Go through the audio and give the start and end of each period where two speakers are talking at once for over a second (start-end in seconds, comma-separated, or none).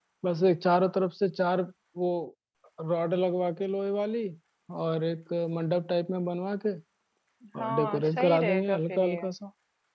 7.6-9.2